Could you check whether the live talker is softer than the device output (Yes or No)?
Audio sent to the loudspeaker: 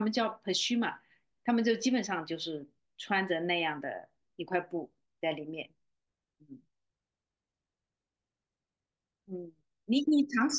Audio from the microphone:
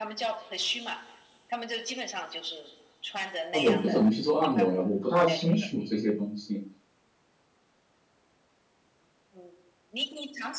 No